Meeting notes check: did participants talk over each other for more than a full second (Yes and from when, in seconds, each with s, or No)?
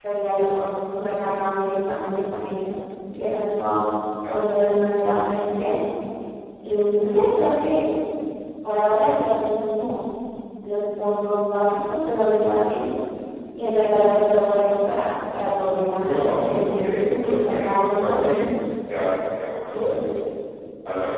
Yes, from 16.0 s